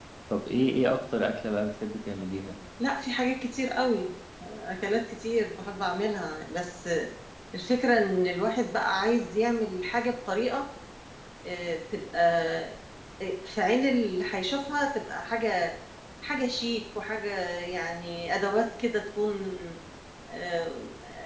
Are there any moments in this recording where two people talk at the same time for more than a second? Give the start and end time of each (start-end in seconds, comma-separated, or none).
none